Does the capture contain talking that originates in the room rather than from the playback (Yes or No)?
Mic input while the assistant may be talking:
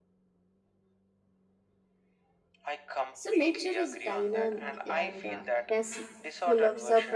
Yes